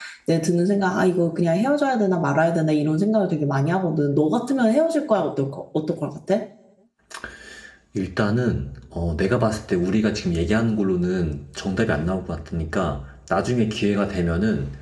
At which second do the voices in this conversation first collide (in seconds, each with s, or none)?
none